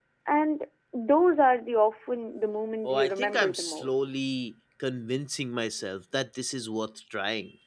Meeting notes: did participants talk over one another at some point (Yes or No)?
Yes